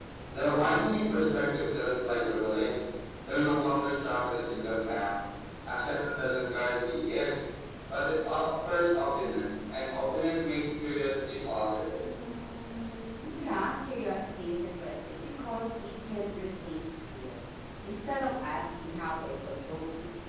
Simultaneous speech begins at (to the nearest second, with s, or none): none